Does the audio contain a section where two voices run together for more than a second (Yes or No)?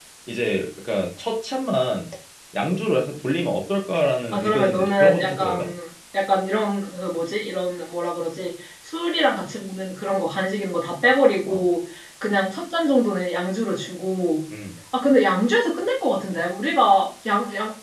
Yes